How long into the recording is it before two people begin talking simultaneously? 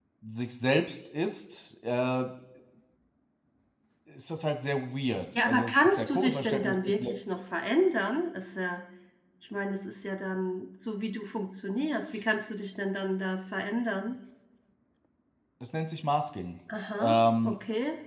5.3 s

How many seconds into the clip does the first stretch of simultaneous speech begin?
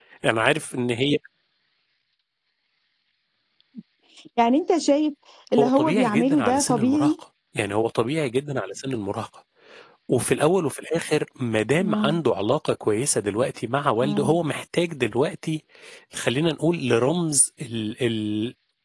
5.6 s

